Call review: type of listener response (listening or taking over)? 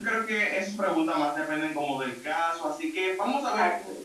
listening